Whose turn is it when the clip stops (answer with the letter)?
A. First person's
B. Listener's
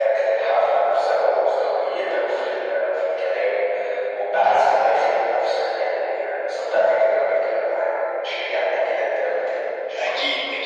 B